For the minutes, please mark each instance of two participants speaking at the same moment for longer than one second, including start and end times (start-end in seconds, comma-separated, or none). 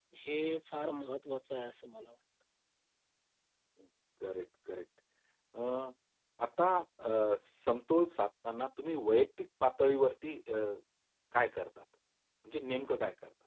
none